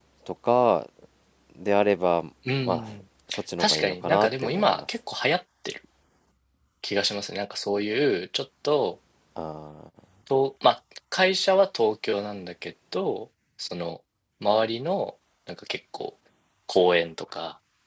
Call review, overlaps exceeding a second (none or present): present